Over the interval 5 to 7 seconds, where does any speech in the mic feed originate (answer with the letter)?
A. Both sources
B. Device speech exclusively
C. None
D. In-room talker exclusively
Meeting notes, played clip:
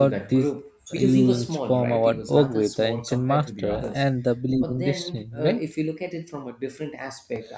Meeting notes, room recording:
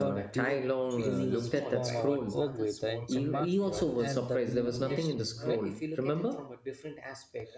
A